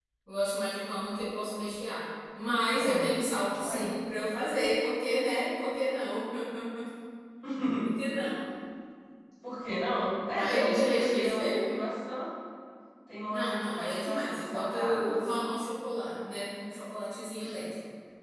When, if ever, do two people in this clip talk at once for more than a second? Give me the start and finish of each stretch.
10.4-11.7, 13.3-15.2

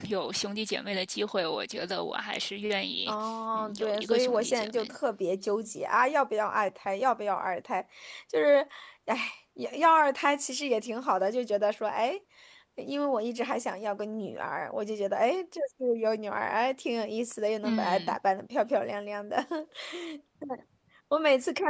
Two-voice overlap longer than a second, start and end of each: 3.5-4.9

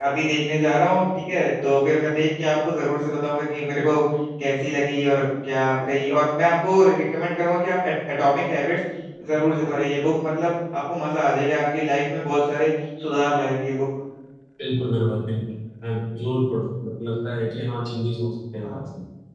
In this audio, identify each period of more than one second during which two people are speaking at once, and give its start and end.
none

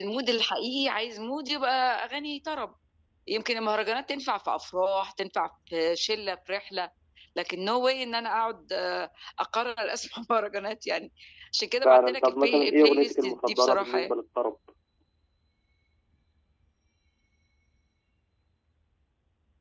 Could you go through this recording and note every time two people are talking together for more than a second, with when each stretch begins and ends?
11.8-14.1

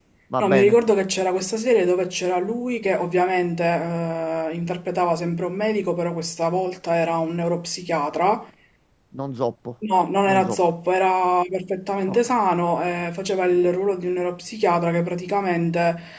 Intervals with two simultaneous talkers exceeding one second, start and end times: none

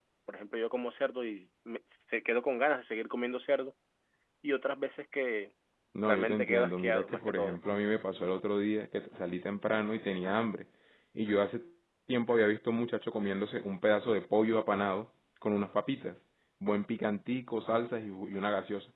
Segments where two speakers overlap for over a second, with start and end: 6.0-7.6

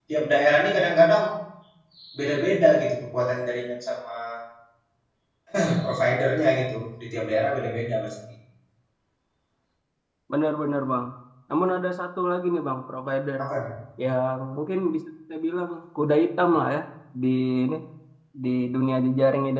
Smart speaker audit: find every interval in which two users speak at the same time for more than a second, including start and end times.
none

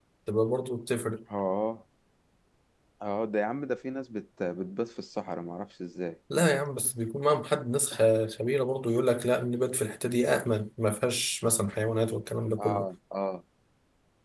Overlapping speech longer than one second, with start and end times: none

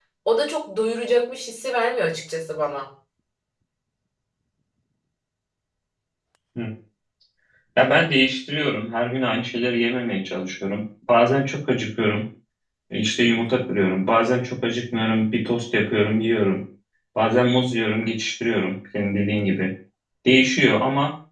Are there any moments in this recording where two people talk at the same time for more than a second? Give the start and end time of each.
none

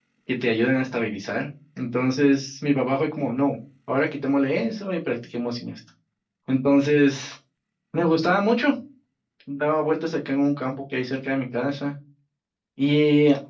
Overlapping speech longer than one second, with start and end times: none

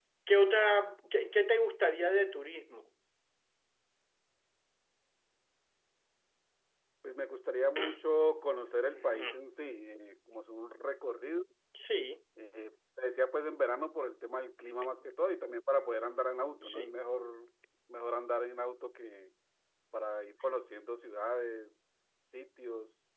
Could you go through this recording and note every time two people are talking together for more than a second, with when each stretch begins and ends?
none

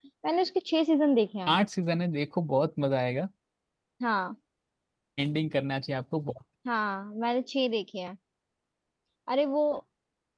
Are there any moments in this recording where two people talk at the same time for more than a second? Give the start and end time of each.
none

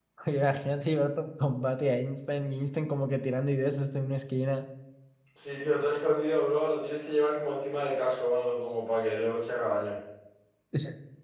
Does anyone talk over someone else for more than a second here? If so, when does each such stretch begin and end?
none

